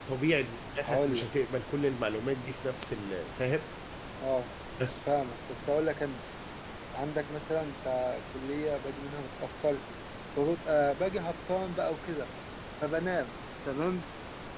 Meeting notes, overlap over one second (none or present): none